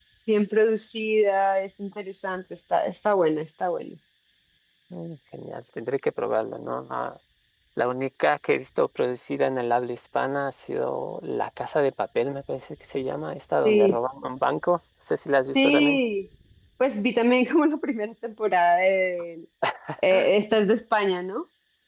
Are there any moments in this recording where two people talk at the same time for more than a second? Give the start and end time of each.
none

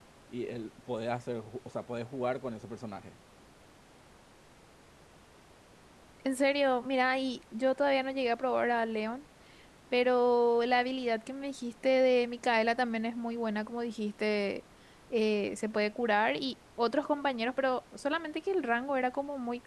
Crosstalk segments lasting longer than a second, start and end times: none

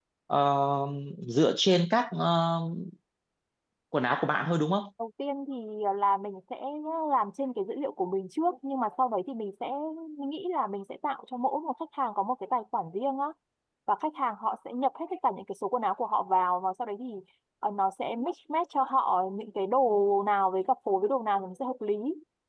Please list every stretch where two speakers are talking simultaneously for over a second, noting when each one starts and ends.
none

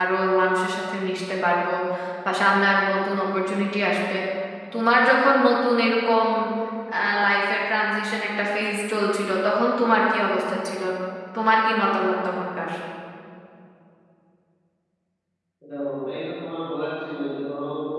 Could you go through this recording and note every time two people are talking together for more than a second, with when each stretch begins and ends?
none

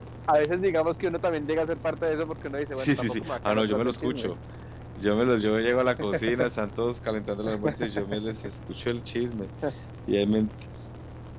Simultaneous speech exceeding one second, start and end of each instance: 2.8-4.3

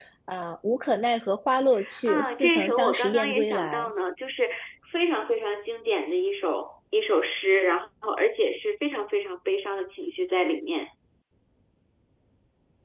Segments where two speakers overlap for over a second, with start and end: 2.0-3.9

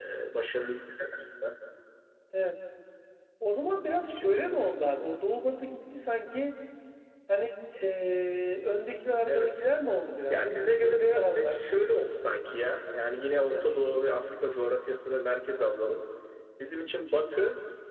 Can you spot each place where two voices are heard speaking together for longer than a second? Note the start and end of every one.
10.3-11.6

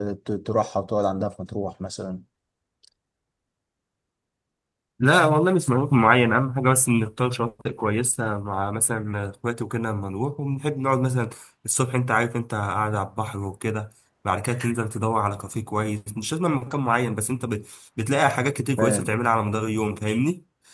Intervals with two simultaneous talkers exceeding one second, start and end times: none

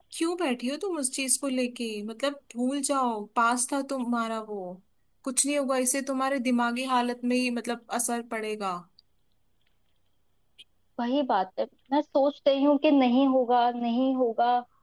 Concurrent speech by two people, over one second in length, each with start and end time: none

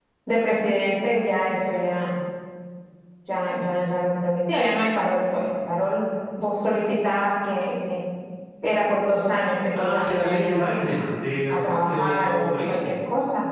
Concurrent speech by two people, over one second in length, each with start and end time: 9.8-11.0, 11.5-12.9

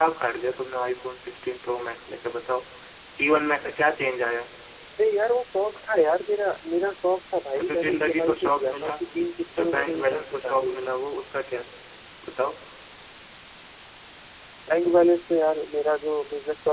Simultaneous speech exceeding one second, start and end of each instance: 7.6-9.0, 9.4-10.7

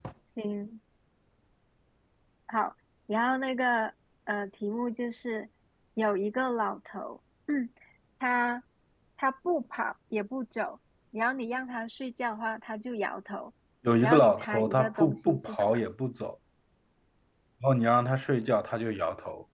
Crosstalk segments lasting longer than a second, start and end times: 14.0-15.8

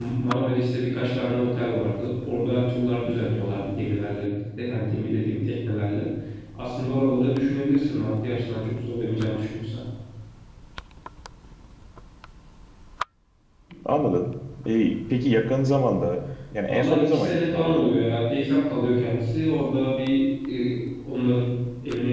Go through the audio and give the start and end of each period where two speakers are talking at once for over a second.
16.7-18.0

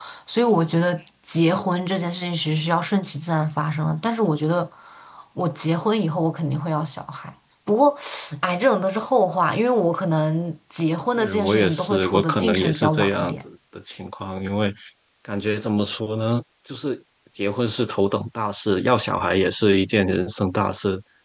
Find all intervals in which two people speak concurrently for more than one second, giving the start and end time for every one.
11.2-13.3

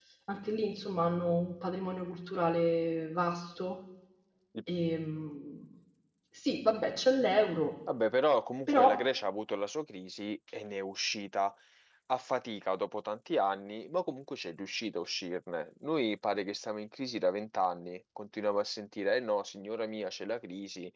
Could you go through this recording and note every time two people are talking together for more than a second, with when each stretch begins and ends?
none

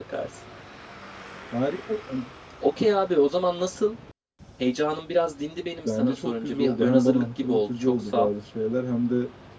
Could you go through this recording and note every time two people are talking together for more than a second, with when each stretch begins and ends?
5.8-8.3

